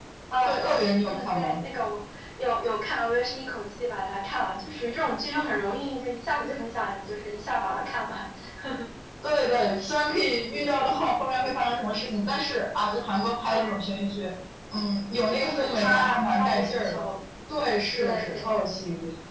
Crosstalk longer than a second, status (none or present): present